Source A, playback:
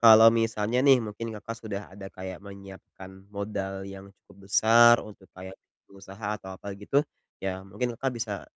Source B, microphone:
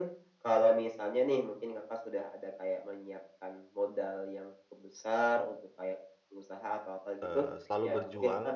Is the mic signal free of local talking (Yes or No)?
No